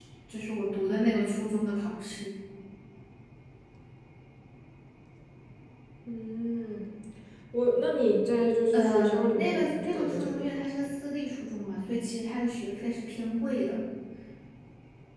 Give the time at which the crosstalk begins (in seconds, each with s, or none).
8.7 s